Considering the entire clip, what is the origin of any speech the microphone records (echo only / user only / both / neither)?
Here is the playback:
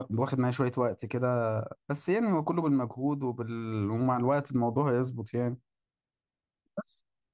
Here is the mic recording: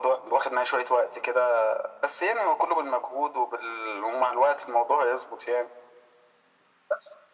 echo only